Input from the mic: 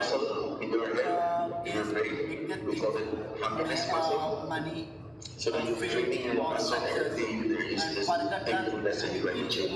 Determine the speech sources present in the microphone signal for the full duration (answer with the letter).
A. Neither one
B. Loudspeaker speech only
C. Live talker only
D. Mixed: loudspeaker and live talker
D